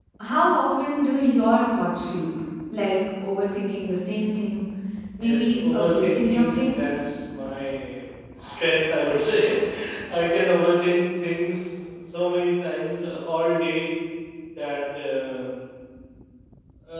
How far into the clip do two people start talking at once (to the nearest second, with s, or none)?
5 s